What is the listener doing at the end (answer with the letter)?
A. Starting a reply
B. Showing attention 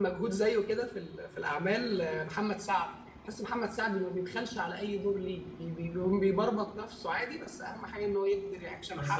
A